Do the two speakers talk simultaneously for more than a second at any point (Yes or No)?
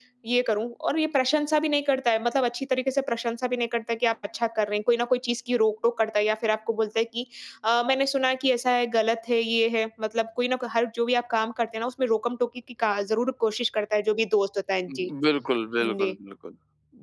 No